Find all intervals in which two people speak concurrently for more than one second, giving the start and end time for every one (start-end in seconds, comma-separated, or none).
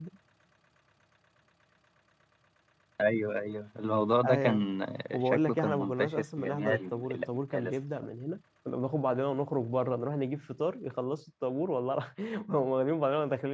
5.1-7.7